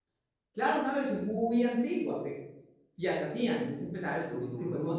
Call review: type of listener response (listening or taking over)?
taking over